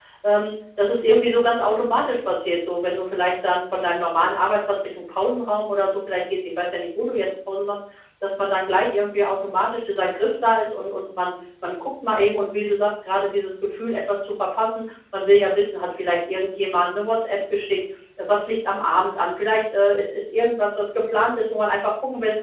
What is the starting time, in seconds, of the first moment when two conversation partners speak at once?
none

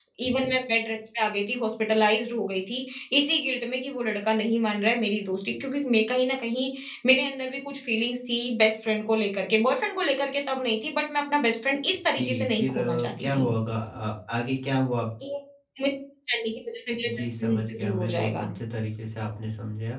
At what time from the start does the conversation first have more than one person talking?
12.2 s

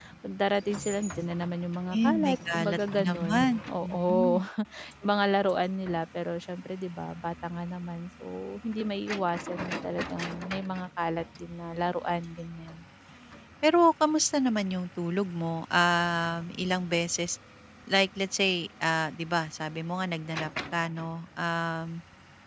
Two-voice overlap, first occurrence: 1.9 s

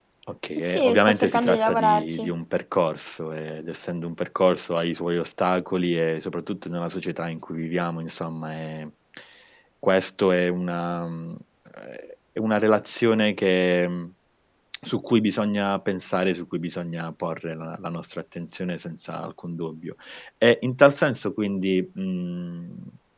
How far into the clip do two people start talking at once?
0.6 s

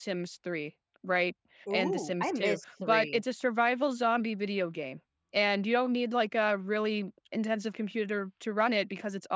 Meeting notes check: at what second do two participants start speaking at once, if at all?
1.7 s

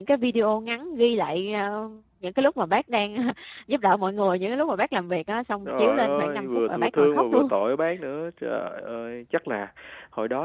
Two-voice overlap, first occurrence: 5.6 s

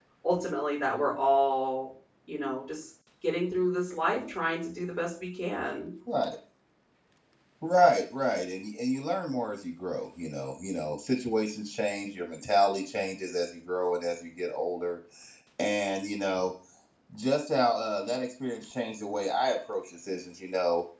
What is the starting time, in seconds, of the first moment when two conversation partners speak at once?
none

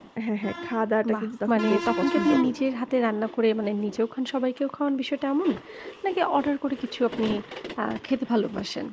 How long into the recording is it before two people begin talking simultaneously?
1.1 s

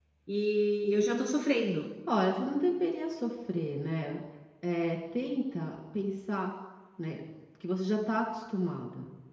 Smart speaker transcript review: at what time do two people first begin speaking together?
none

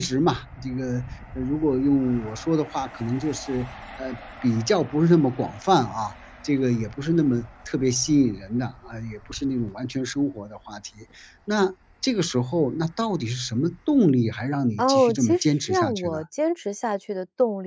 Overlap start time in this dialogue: 14.8 s

